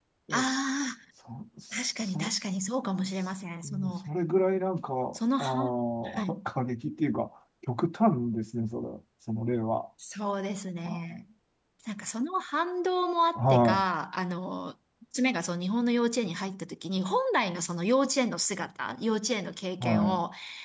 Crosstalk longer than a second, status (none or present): none